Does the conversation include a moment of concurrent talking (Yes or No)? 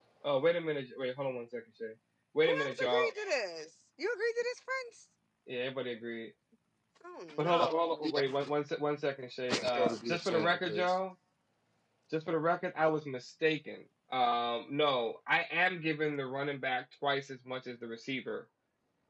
Yes